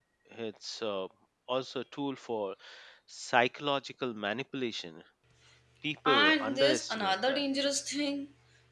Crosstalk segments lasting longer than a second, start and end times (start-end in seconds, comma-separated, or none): 6.0-7.4